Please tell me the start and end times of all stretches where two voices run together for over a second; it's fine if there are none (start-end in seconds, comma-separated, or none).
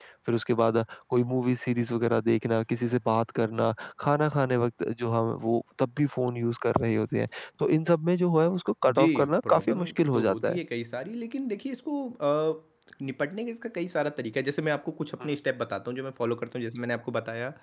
8.8-10.6